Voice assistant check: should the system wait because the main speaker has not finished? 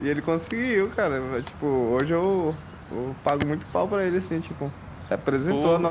Yes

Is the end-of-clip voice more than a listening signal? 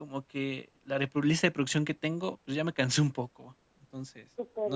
No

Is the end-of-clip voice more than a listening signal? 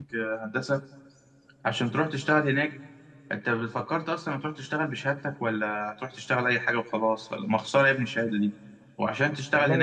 No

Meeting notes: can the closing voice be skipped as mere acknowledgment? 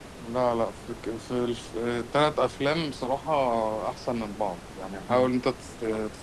Yes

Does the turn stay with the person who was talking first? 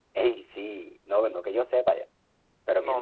No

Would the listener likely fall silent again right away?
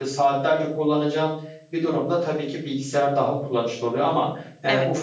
Yes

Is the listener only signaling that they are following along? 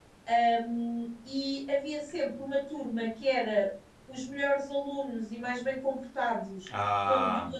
Yes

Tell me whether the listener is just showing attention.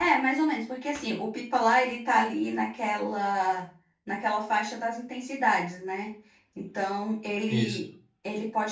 Yes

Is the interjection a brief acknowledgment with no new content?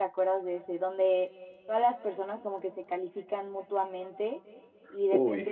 Yes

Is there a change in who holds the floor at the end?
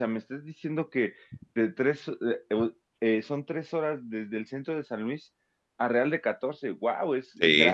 Yes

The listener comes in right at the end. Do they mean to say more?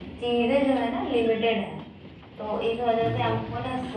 No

